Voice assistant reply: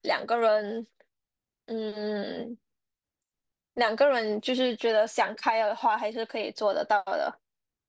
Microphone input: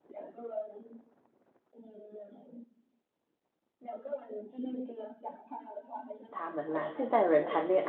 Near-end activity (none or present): present